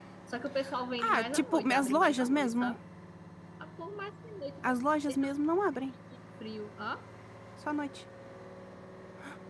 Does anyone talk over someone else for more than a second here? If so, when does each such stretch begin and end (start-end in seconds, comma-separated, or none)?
1.1-2.8